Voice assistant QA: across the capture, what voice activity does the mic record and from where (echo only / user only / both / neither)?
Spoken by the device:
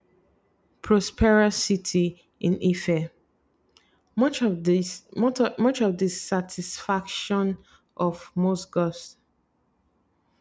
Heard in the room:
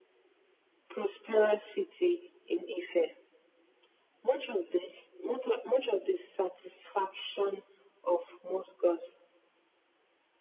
echo only